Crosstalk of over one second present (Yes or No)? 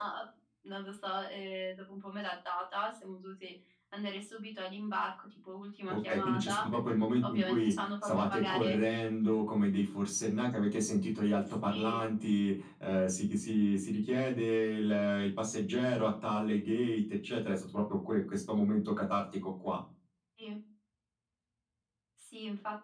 Yes